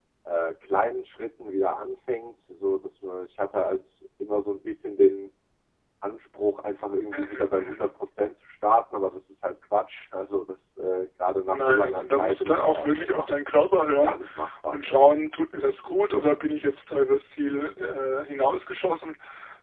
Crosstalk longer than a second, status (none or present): present